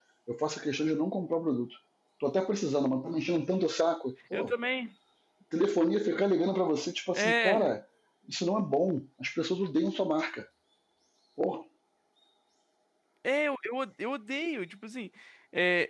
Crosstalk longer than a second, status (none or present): none